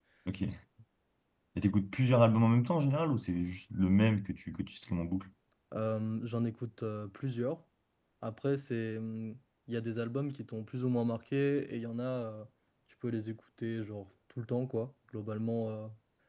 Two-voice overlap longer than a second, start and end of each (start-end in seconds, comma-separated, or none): none